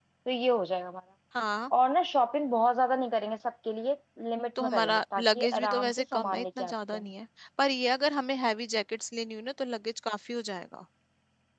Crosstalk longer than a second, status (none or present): present